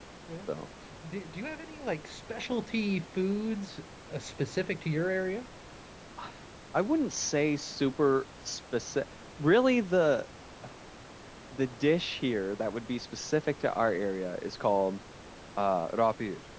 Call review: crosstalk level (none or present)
none